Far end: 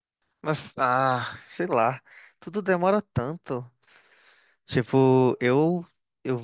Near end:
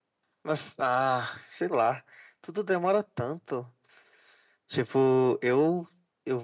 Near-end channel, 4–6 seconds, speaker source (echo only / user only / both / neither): echo only